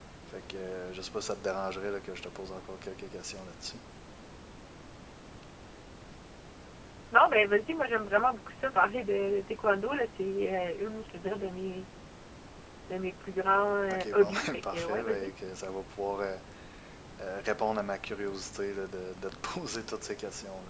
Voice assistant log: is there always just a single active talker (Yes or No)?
No